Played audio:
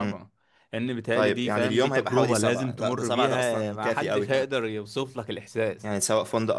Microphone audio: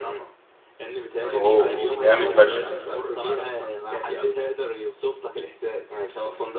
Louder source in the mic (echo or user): user